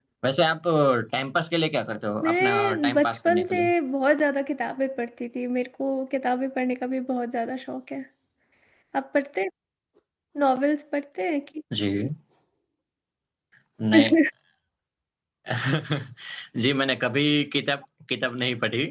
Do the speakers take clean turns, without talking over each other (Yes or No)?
No